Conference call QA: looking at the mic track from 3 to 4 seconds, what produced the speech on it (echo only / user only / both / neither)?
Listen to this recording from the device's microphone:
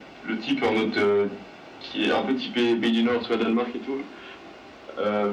echo only